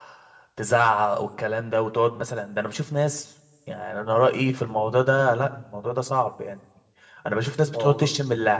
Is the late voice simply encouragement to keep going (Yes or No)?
Yes